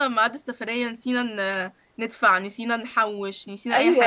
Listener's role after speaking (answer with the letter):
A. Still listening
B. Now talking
B